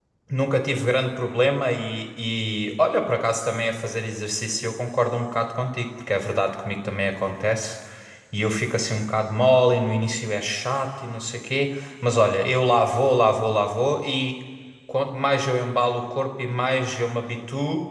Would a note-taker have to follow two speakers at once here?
No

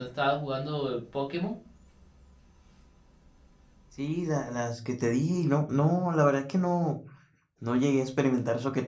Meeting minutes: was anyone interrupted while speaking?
No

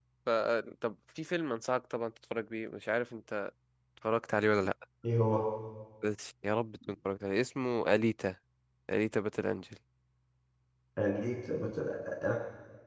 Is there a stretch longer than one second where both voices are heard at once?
No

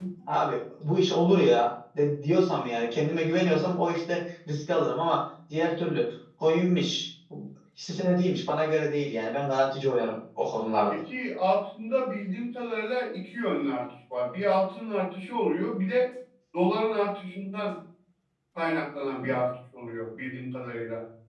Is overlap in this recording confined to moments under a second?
Yes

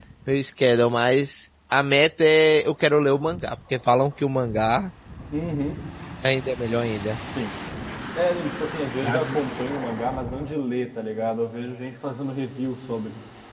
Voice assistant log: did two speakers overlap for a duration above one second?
No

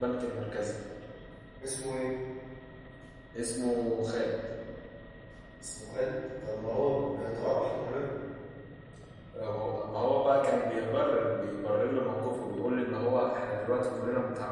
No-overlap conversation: Yes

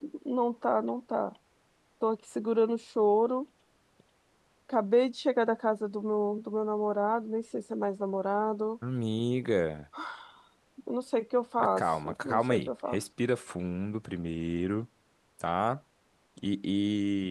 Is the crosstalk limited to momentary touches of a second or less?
No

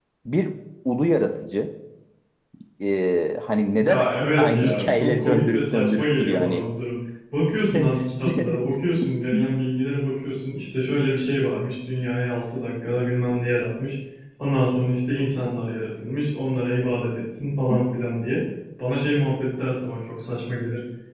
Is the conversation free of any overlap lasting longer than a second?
No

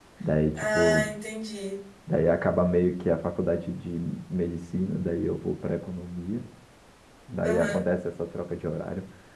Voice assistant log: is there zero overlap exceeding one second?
Yes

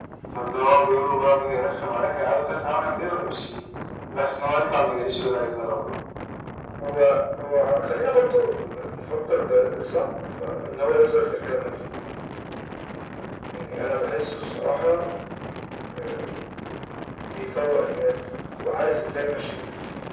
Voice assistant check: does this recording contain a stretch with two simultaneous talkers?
No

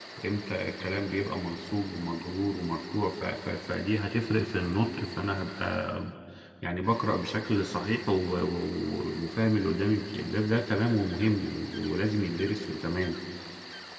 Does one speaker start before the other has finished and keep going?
No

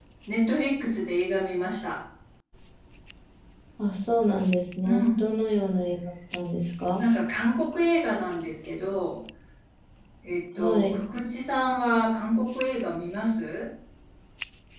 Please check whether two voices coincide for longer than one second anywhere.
No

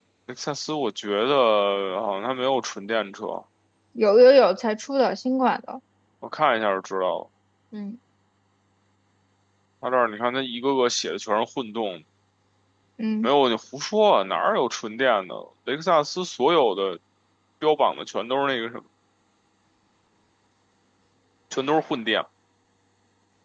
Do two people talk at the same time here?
No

